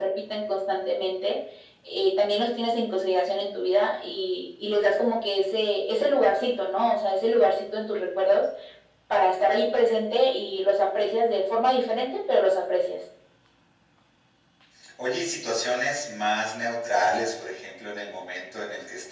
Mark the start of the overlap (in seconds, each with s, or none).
none